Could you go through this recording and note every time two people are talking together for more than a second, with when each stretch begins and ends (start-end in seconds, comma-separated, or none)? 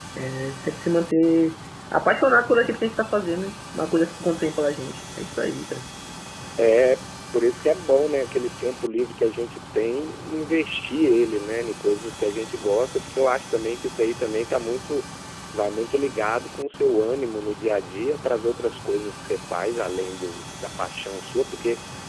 none